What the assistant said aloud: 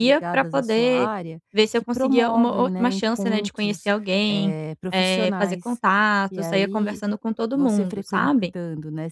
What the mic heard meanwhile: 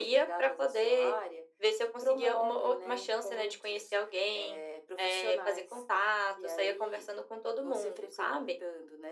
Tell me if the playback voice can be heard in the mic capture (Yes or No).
Yes